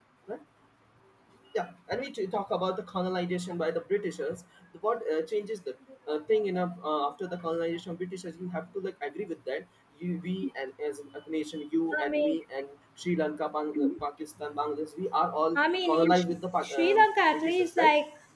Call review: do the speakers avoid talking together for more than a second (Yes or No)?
No